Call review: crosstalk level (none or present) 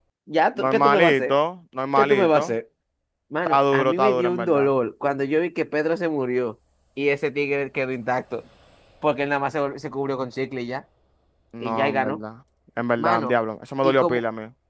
present